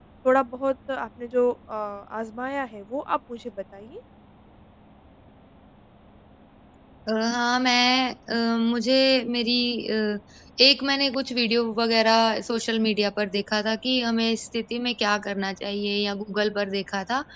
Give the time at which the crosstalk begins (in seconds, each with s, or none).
none